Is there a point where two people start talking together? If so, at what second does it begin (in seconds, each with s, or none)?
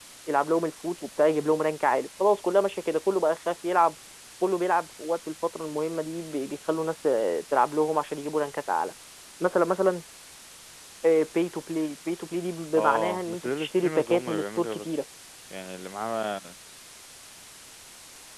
12.7 s